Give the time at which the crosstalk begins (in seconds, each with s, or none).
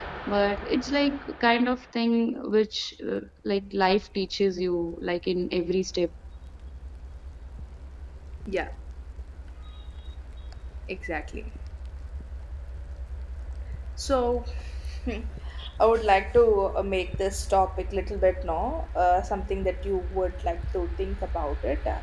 none